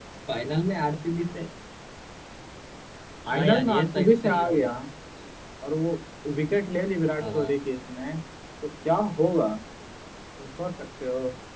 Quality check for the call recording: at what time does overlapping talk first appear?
3.3 s

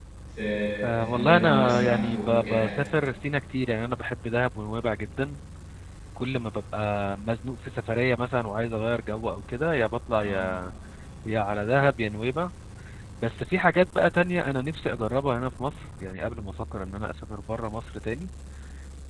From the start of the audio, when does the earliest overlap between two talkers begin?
0.8 s

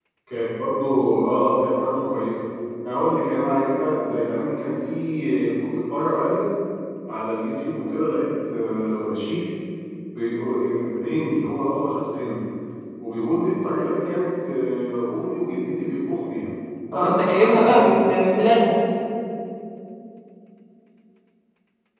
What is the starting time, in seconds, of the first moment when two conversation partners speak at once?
16.9 s

